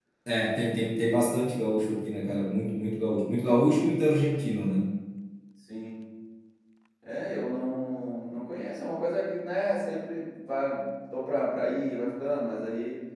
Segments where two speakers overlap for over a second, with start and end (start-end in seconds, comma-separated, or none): none